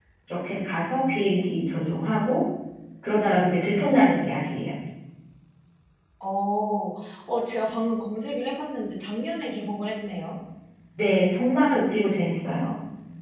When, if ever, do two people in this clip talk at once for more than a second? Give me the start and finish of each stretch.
none

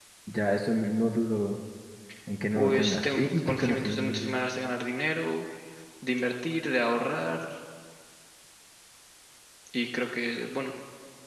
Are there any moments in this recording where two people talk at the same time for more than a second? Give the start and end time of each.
2.5-4.4

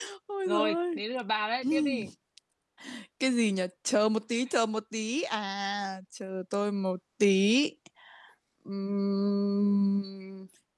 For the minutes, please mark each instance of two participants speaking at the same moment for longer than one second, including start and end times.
none

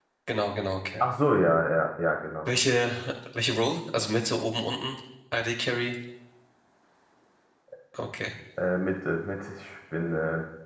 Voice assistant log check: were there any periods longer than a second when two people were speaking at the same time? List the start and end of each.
none

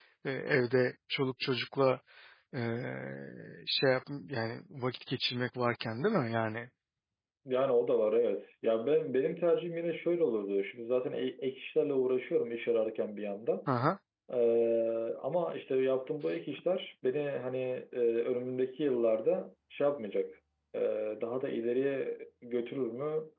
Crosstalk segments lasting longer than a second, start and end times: none

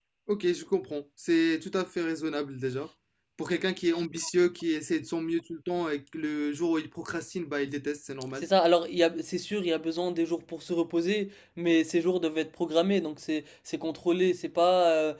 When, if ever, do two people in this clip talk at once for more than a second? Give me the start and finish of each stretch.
none

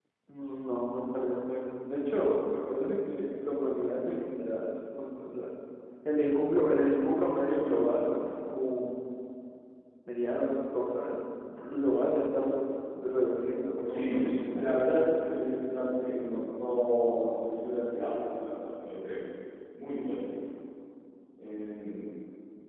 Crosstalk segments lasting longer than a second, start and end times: 13.9-15.3

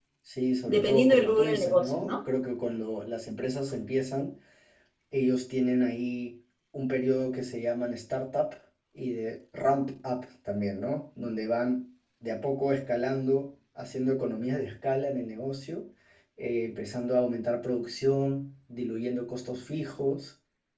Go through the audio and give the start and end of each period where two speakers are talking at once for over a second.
0.7-2.2

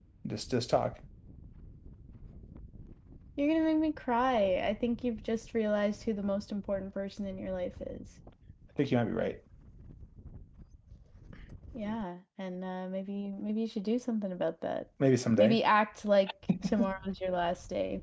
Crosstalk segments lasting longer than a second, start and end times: none

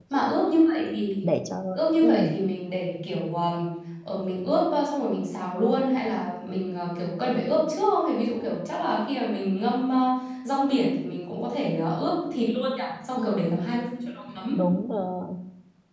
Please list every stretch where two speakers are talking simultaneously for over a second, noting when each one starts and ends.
none

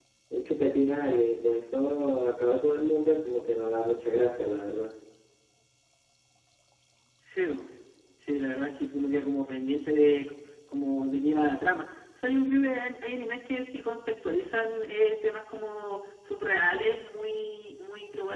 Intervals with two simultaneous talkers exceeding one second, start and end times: none

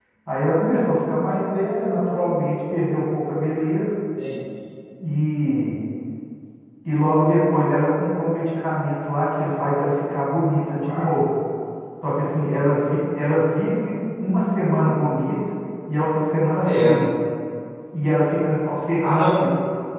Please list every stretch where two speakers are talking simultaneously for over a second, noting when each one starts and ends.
none

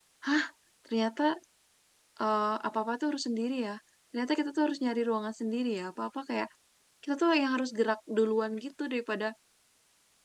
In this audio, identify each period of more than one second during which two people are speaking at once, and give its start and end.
none

